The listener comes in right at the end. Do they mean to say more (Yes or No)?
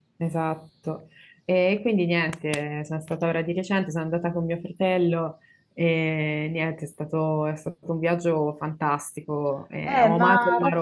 Yes